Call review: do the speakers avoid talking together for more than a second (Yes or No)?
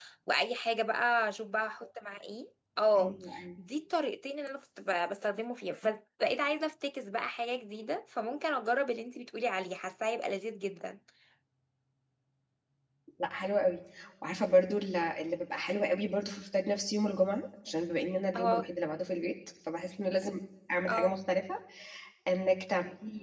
Yes